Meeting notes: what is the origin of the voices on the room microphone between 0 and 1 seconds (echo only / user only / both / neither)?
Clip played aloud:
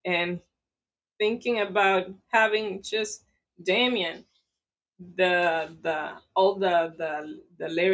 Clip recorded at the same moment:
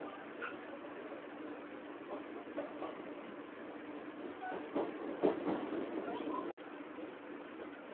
neither